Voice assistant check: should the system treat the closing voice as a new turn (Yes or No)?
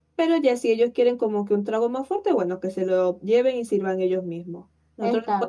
No